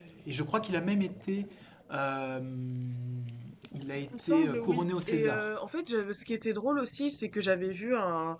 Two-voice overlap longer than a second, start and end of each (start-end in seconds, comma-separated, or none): 4.1-5.5